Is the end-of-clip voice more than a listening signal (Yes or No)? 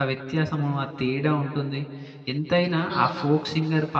No